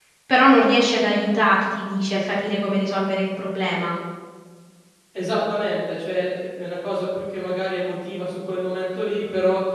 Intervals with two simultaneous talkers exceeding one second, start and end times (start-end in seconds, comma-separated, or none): none